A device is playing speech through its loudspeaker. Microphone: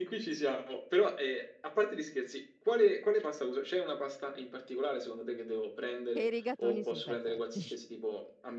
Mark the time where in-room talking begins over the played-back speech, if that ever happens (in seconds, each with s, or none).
6.1 s